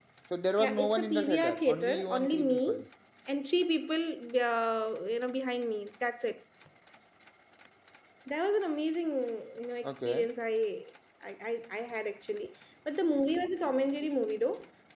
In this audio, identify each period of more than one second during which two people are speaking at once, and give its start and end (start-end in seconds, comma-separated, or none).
0.6-2.8